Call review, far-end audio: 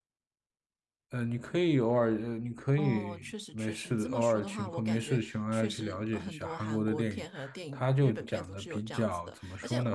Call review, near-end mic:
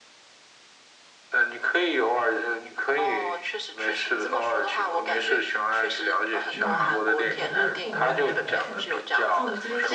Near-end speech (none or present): present